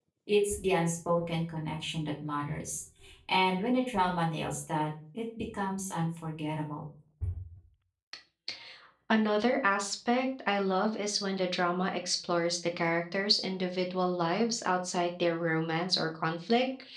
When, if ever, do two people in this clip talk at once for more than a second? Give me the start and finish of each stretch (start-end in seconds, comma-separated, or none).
none